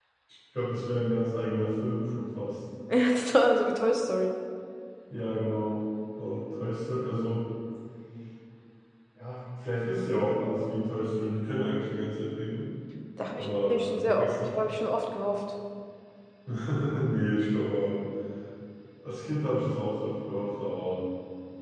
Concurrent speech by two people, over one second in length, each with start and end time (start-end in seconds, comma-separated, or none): 13.3-14.7